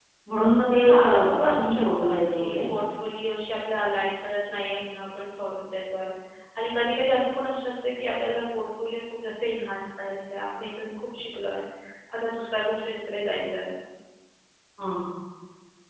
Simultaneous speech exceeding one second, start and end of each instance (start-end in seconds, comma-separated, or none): 0.9-2.6